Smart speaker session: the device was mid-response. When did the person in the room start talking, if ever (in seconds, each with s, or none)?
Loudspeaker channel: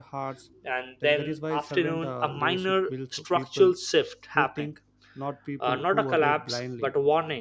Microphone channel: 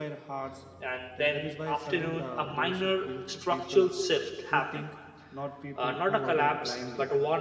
none